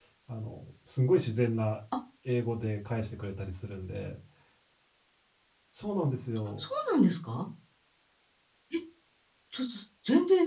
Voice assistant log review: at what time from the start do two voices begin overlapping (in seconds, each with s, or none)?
none